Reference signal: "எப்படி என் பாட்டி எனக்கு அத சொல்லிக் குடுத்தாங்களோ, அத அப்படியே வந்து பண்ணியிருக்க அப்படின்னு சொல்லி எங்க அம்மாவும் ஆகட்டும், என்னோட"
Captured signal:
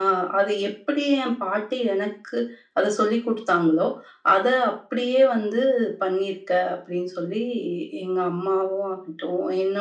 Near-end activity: none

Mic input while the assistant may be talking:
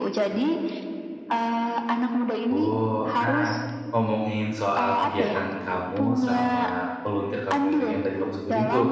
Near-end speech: present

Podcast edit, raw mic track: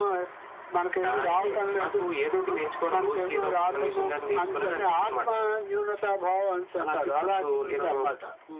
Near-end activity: none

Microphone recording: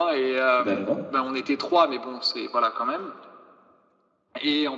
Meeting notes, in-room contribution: present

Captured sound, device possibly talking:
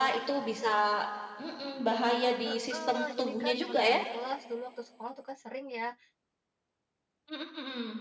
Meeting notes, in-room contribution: present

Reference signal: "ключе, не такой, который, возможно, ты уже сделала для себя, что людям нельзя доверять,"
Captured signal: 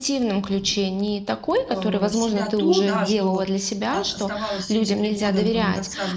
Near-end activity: present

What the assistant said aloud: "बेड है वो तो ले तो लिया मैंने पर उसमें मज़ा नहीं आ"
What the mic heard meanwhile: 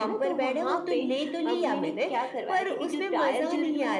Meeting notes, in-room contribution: present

